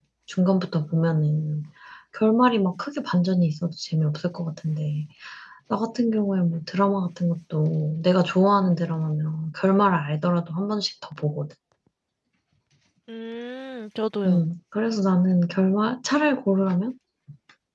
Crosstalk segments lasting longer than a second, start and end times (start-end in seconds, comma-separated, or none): none